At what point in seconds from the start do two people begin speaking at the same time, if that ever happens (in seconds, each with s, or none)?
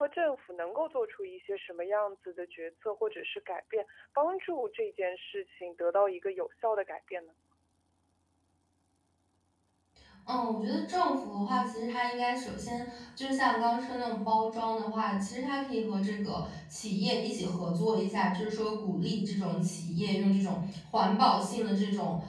none